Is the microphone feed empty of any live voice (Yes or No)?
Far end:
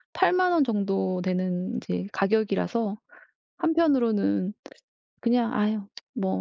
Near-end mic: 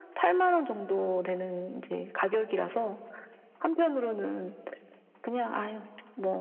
Yes